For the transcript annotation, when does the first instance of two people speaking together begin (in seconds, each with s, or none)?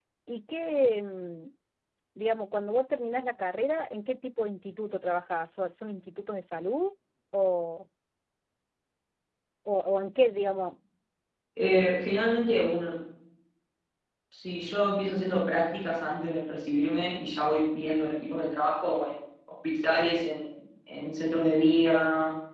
none